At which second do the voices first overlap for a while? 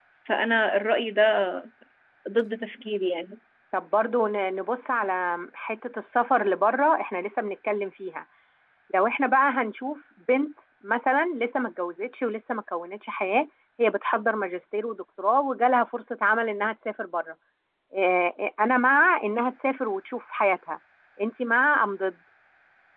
none

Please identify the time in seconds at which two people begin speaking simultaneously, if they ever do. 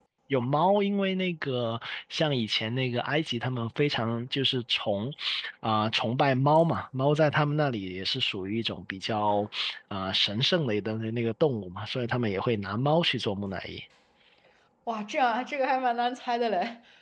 none

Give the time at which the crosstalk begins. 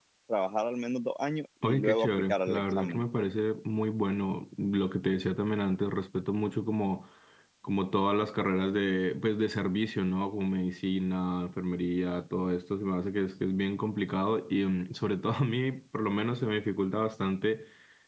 1.6 s

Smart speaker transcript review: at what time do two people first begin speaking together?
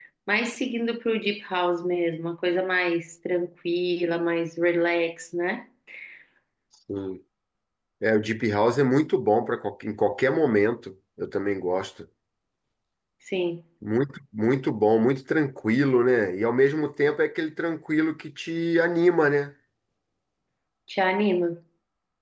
none

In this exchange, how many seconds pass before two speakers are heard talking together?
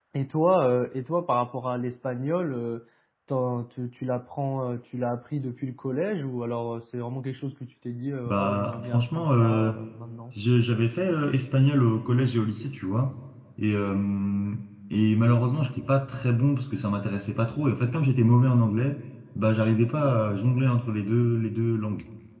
8.3 s

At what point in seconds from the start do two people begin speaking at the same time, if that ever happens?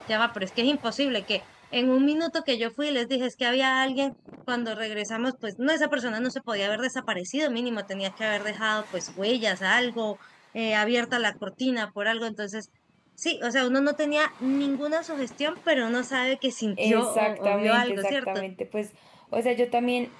16.8 s

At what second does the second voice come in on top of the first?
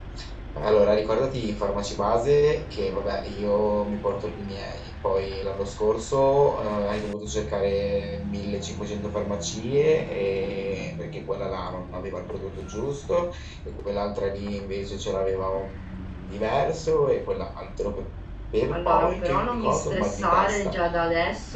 18.7 s

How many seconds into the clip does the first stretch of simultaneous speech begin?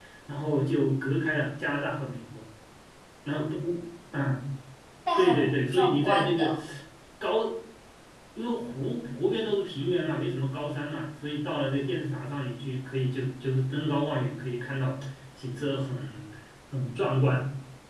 5.2 s

